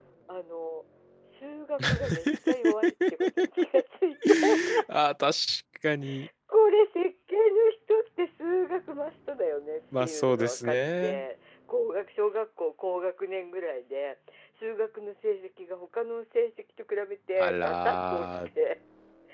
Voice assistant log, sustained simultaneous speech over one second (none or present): present